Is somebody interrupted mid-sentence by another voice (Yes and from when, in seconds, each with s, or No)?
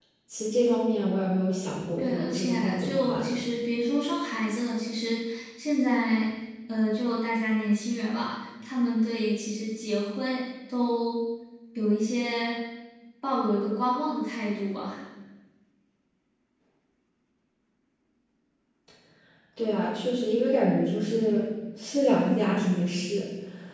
Yes, from 2.0 s